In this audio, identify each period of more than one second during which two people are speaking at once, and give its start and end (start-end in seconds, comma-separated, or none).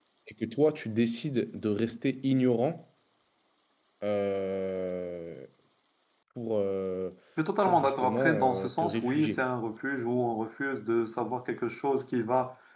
7.6-9.4